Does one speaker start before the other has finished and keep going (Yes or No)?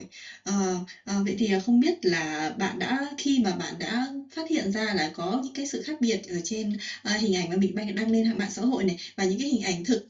No